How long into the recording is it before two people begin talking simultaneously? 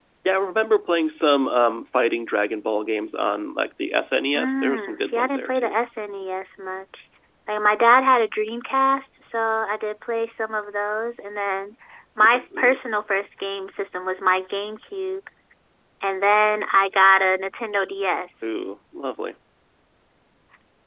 4.4 s

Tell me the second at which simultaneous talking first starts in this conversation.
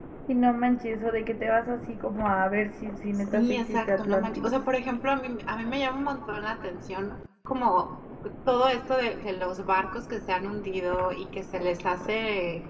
3.1 s

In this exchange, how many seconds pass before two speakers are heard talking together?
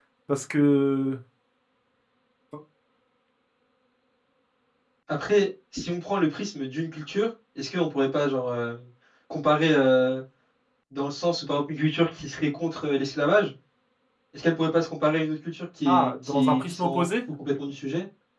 15.8 s

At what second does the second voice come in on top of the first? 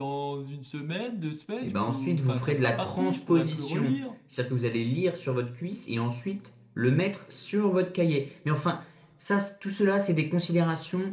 1.6 s

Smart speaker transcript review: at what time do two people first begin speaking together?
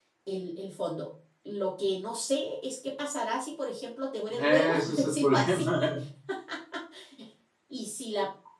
4.3 s

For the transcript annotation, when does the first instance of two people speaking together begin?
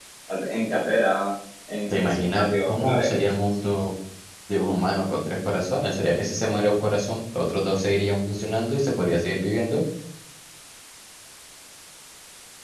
1.9 s

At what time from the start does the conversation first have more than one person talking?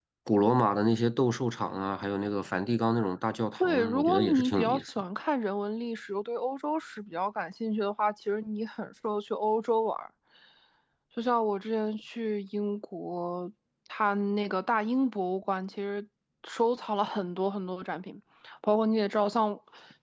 3.6 s

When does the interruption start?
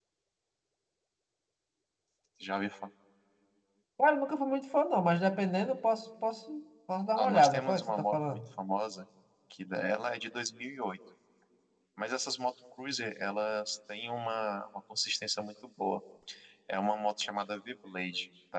7.2 s

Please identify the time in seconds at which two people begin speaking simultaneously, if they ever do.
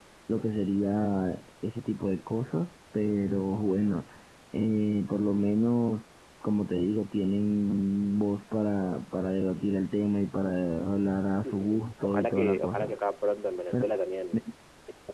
11.4 s

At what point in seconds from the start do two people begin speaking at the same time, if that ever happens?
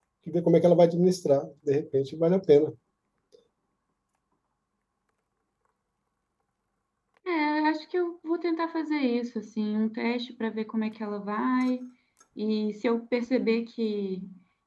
none

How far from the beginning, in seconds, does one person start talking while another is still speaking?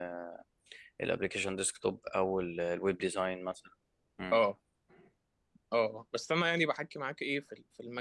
none

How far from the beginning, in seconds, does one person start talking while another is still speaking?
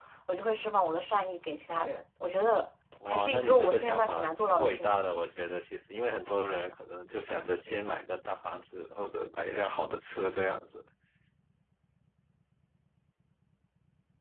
3.0 s

